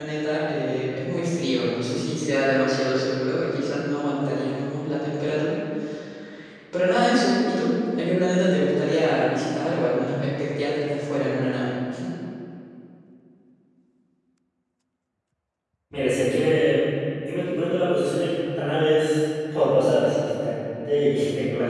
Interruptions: none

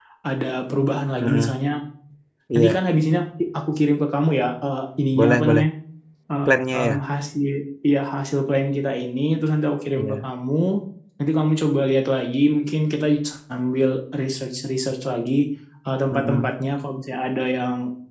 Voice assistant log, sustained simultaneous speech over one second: none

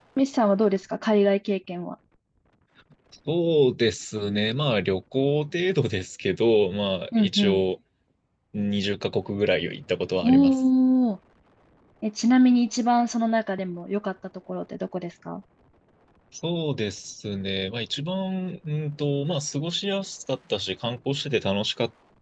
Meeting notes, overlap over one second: none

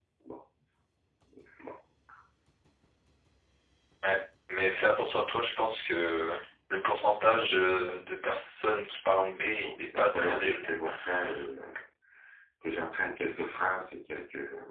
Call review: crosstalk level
present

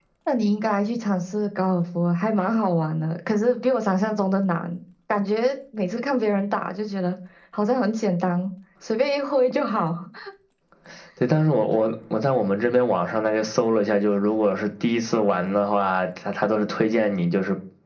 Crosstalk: none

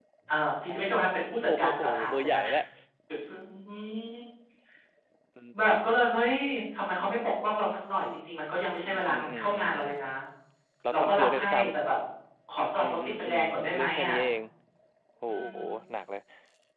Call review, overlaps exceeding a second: present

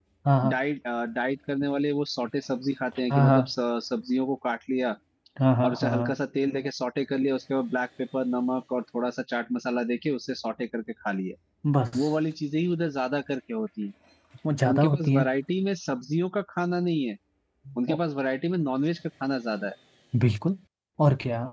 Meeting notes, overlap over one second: none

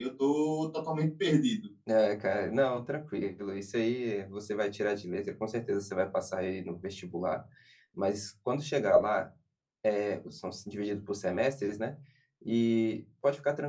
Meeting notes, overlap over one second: none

